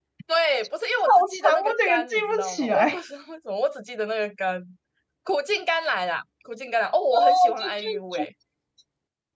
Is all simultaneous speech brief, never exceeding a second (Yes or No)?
No